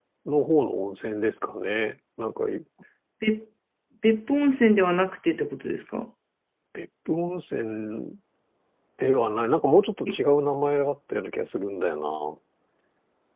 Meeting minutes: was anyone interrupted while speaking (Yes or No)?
No